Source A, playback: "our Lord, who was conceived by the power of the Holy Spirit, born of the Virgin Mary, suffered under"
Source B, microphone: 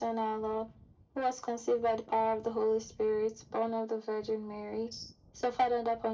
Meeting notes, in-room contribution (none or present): none